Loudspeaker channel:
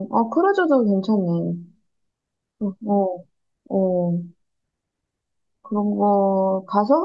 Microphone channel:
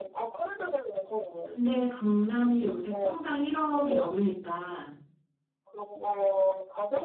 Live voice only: 근데 강남이 요새 평당 1억이 넘으니까,

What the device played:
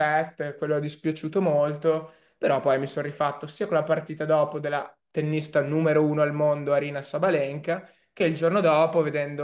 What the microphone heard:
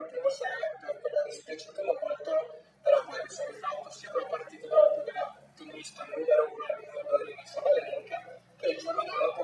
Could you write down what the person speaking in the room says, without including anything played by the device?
none

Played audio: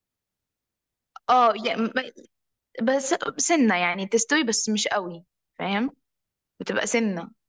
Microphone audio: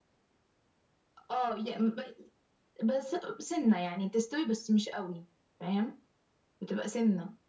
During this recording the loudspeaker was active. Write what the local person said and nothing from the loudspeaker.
none

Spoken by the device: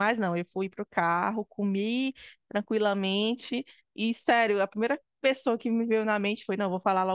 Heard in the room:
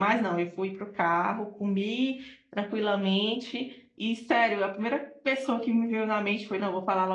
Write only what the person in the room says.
none

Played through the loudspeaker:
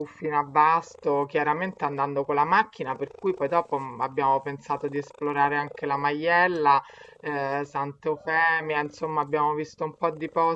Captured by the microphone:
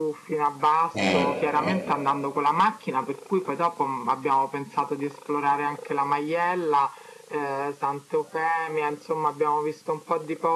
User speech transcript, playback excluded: Eh, eh,

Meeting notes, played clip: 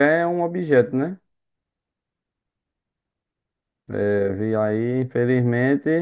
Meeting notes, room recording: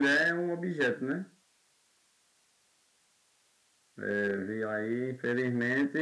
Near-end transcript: none

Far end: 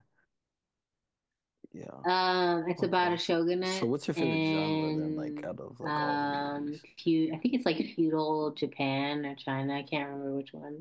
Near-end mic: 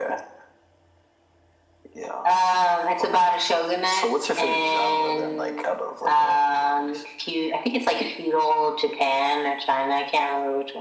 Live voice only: none

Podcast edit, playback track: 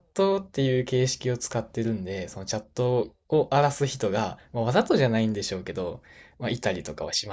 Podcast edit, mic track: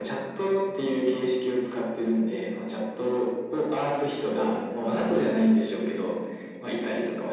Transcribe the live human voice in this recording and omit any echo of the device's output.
そういうので、

